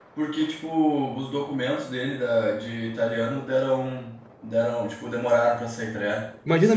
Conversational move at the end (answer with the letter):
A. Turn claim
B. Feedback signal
B